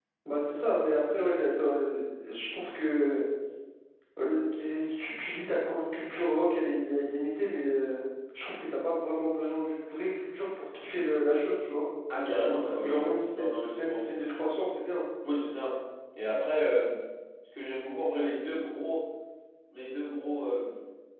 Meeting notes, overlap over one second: present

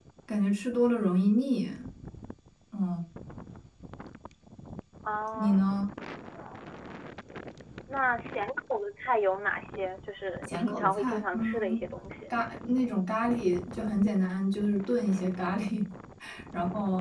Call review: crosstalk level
present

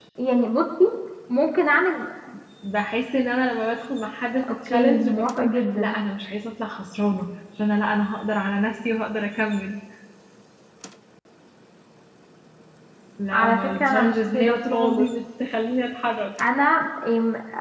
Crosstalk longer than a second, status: present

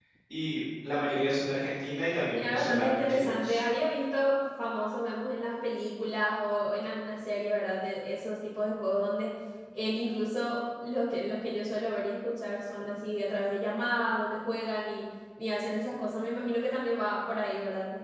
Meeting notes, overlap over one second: present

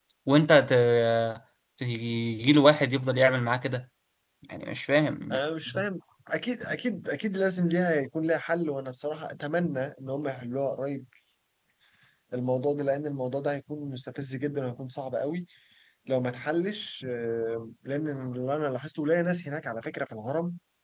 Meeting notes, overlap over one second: none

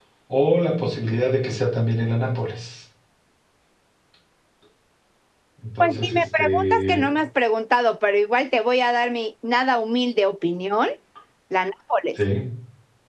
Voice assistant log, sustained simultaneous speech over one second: present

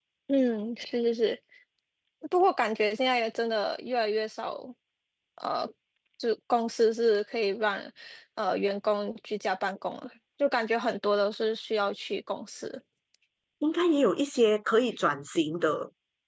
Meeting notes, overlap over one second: none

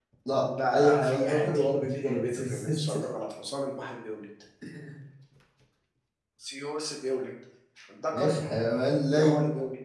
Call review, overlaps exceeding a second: present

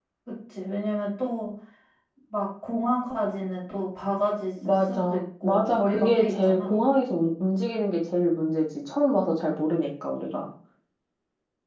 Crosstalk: present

